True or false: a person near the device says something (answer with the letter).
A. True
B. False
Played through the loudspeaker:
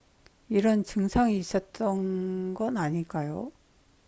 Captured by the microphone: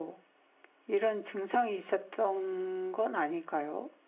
B